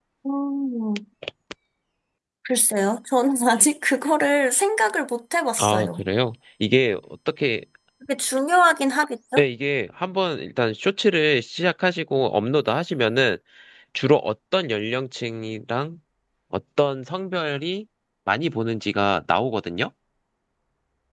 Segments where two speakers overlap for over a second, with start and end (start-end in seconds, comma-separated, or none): none